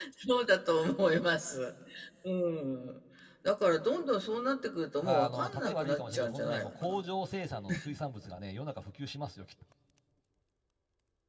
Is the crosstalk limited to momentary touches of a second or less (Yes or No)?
No